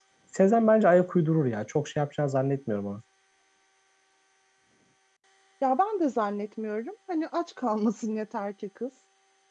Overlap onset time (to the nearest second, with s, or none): none